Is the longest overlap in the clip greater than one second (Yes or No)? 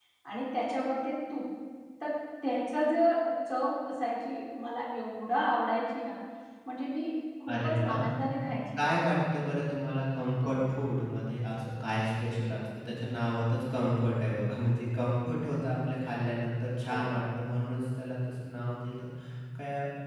No